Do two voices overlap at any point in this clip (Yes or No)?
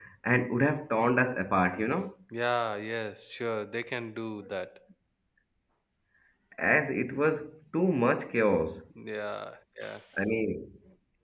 No